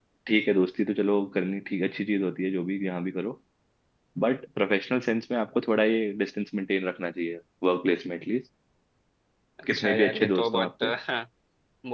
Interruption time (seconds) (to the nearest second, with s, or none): 10 s